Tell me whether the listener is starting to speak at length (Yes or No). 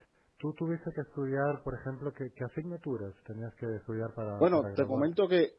Yes